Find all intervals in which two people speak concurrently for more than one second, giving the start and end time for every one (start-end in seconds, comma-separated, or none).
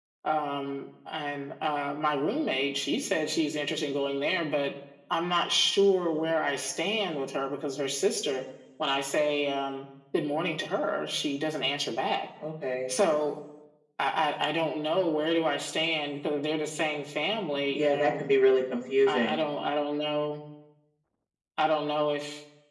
none